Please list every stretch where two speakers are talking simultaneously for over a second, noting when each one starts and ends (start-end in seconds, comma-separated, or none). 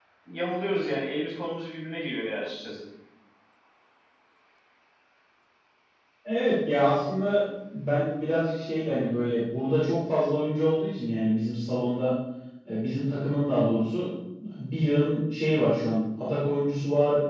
none